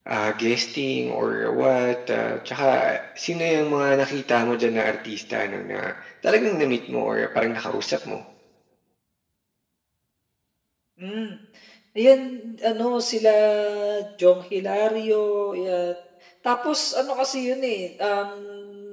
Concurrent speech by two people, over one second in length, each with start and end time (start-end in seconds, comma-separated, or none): none